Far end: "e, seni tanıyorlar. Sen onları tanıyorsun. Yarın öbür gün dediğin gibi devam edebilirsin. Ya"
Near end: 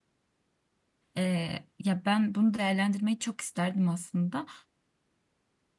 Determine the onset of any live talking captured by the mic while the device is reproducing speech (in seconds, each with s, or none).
1.2 s